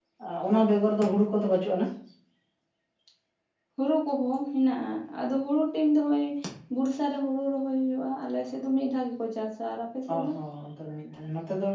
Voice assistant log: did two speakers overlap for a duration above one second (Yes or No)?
No